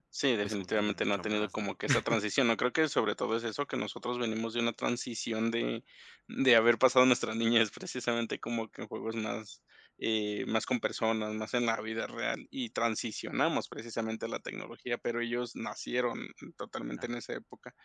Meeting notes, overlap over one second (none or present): present